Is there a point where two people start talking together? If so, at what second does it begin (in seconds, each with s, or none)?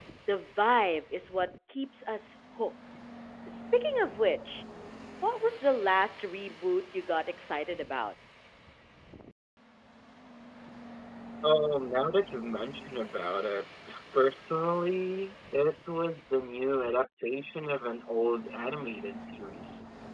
none